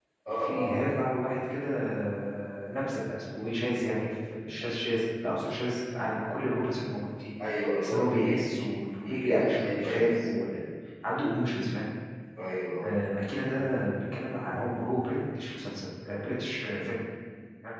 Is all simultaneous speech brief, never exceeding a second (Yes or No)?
No